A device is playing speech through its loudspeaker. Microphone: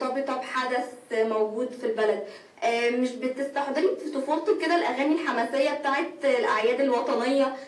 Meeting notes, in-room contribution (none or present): none